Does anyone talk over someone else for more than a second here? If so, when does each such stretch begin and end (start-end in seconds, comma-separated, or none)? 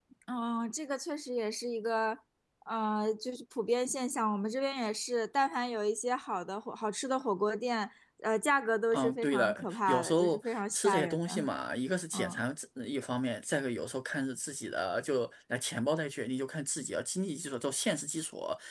8.9-11.3